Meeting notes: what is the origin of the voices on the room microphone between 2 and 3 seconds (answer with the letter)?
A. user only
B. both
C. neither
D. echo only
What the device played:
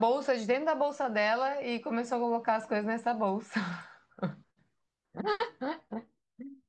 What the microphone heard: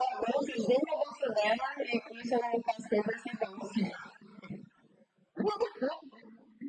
D